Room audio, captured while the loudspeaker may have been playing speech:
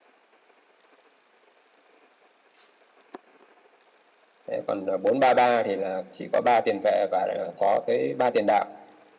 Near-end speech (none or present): present